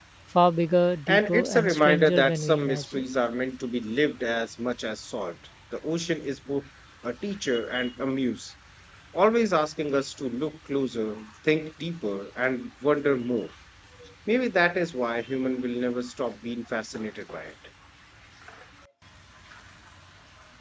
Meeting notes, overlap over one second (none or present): present